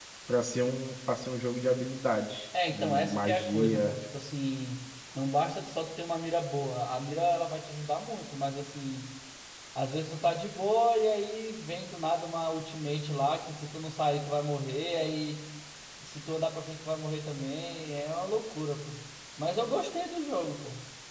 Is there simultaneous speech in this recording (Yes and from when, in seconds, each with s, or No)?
Yes, from 2.5 s